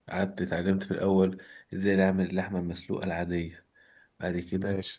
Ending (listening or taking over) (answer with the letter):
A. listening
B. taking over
A